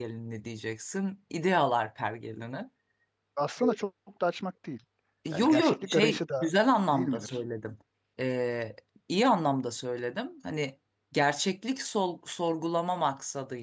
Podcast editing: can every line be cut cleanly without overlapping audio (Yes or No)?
No